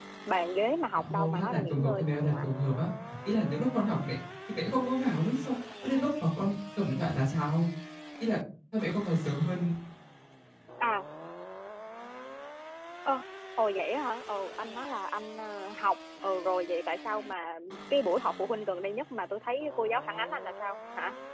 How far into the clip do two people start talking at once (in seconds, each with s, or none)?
0.9 s